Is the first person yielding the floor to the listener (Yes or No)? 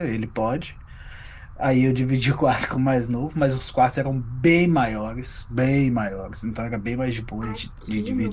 Yes